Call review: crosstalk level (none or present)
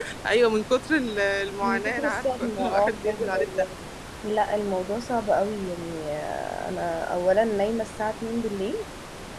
present